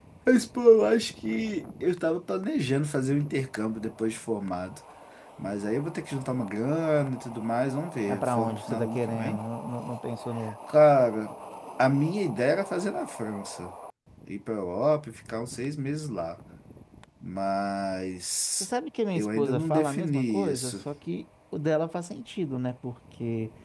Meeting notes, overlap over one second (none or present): present